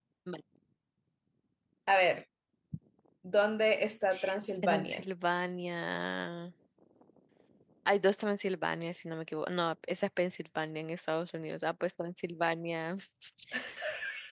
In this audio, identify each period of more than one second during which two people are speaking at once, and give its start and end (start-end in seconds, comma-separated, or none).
none